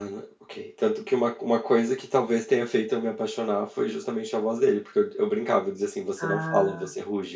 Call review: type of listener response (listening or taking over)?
listening